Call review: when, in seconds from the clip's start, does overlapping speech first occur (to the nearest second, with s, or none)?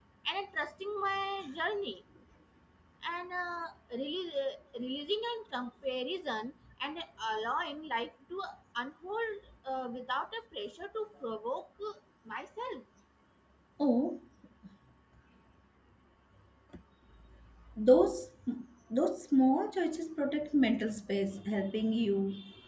none